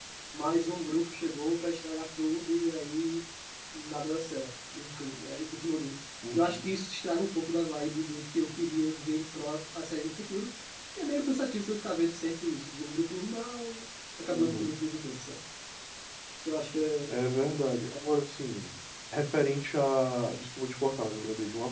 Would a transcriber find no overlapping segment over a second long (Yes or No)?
Yes